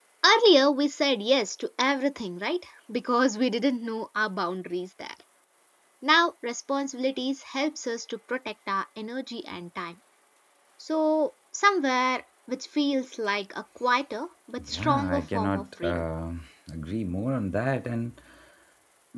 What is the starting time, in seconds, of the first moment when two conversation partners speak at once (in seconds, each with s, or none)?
14.6 s